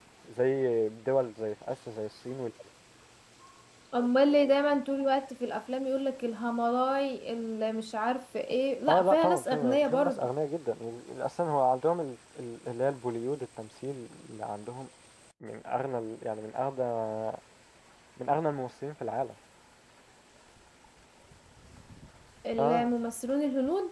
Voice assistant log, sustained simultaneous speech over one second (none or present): present